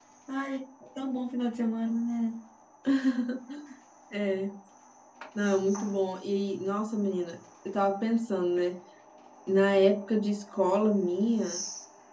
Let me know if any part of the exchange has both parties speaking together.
No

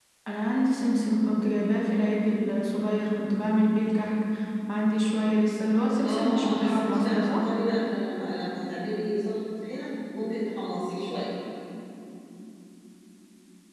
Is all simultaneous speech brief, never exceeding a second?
No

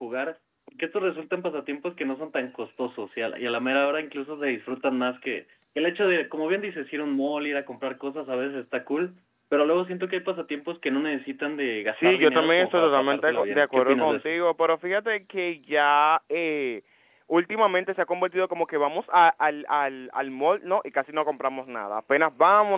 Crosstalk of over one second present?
Yes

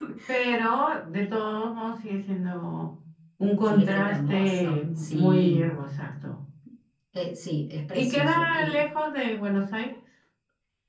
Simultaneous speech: Yes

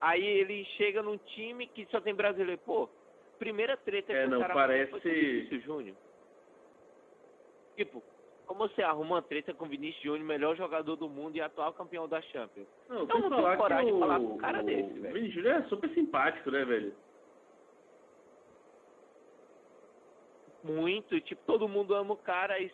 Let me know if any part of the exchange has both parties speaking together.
Yes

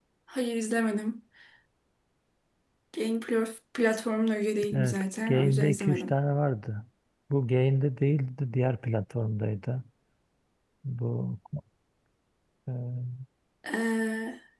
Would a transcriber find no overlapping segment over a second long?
No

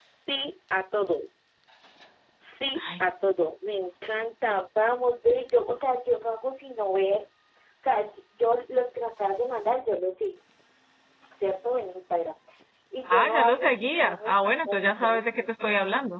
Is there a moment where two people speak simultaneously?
Yes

